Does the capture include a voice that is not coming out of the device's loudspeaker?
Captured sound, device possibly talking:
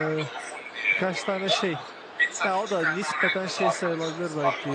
Yes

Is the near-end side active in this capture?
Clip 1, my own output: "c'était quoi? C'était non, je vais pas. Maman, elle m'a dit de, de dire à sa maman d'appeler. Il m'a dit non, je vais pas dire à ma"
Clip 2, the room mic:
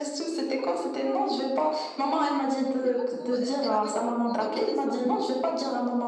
Yes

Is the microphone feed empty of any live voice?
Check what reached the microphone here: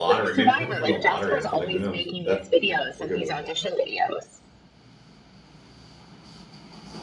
No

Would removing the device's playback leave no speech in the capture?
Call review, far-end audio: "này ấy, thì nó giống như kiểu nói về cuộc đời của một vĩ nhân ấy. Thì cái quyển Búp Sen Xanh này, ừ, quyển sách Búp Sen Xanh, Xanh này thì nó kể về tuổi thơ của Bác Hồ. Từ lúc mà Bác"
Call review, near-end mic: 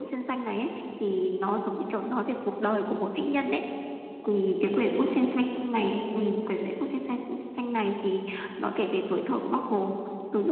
Yes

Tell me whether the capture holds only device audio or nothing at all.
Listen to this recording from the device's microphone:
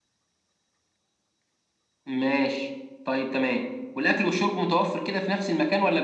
Yes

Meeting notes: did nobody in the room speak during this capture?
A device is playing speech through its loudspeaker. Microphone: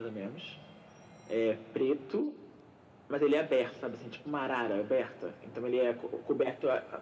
Yes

